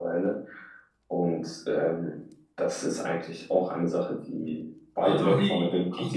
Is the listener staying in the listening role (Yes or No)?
No